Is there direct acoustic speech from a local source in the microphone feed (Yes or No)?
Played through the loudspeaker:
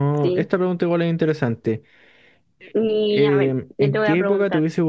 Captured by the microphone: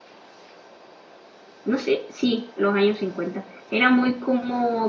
Yes